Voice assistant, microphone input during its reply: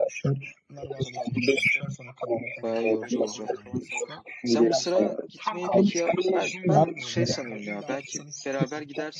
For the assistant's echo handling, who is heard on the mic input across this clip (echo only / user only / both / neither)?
both